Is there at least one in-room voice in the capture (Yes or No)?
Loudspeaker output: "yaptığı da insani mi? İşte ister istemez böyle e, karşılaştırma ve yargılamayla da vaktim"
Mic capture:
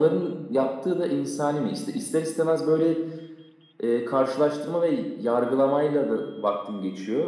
No